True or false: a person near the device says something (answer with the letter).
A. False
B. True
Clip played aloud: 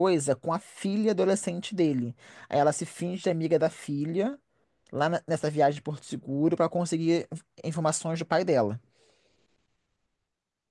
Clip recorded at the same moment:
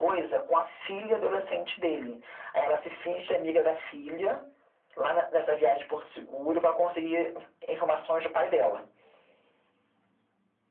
A